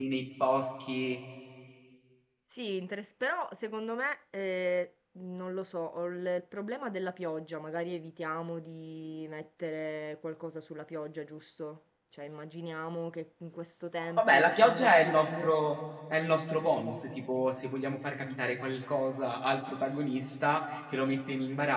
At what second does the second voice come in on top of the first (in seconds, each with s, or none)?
14.0 s